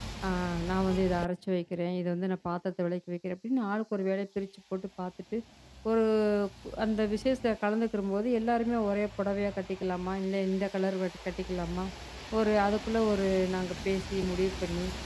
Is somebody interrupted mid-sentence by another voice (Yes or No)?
No